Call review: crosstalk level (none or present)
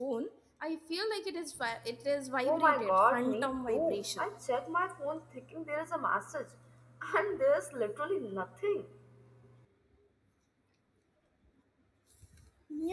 present